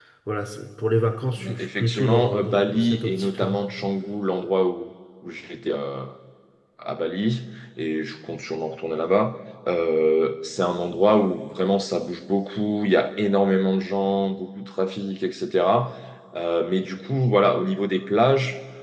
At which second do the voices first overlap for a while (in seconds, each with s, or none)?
1.4 s